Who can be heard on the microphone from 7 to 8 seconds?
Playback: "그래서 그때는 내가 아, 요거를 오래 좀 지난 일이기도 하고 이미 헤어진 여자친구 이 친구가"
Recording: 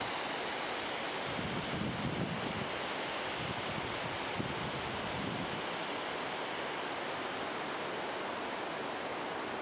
neither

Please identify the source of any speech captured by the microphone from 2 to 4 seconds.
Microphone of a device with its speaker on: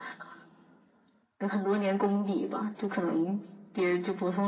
echo only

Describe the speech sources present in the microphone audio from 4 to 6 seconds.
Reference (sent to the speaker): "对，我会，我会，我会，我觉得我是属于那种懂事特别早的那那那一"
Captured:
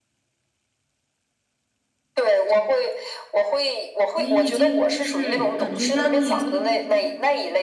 both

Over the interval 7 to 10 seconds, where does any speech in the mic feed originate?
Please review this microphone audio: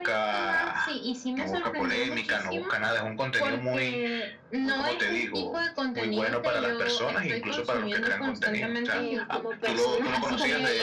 both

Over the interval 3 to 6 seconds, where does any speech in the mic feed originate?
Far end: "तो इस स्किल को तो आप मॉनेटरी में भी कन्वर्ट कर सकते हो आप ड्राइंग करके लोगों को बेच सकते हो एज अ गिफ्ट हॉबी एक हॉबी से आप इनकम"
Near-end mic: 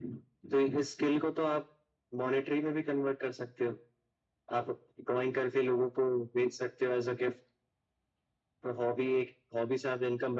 echo only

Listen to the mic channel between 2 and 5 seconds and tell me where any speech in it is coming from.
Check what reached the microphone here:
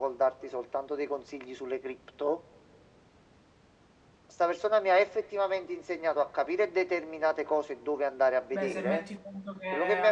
echo only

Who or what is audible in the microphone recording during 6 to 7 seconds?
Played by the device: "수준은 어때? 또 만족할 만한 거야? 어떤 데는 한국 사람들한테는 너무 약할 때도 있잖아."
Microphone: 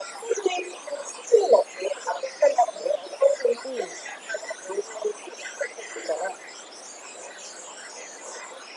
echo only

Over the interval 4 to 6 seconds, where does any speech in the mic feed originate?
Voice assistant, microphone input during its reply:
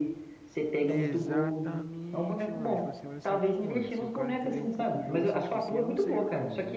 both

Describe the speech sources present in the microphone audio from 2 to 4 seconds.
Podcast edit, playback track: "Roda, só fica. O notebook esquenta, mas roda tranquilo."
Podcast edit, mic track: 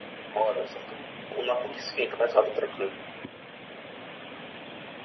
echo only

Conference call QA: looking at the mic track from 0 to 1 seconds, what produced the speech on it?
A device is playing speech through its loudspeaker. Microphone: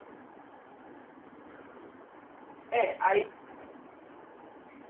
neither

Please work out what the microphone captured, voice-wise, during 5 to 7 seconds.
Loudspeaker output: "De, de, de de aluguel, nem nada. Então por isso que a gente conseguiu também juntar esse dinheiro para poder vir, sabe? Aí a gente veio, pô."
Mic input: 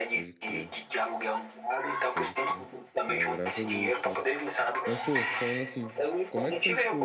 both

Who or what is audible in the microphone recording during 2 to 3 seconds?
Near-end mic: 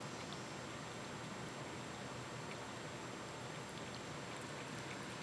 neither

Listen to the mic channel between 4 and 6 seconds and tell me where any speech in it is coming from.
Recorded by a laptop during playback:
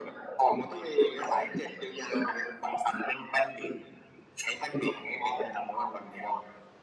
echo only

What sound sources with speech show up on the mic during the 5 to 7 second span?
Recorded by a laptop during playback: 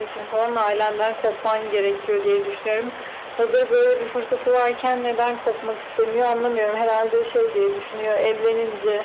echo only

